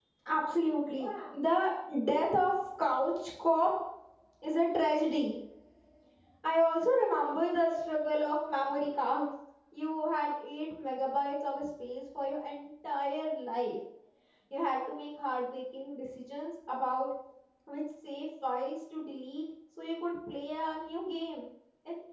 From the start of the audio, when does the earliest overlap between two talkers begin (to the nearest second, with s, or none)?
none